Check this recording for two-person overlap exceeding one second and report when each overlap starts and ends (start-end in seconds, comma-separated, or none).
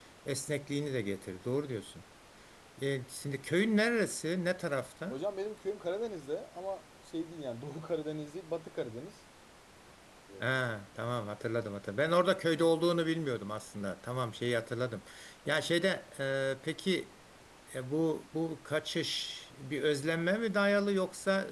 none